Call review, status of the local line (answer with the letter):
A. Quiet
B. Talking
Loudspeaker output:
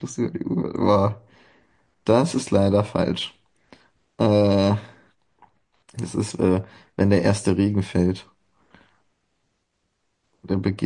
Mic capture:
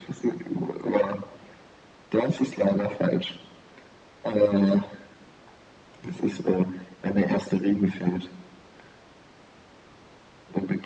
A